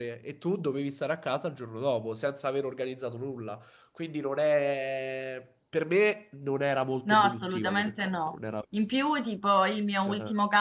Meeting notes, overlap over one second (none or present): present